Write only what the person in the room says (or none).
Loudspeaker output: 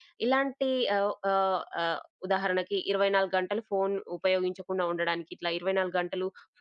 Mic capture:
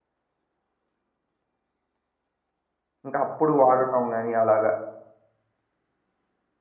ఇంకా అప్పుడు వాడటం గాని అలాగా.